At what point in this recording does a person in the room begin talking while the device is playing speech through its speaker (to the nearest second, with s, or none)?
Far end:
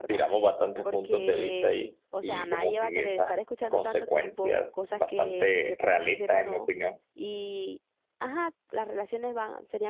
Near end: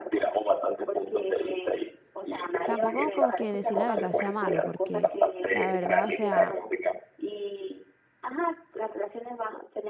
3 s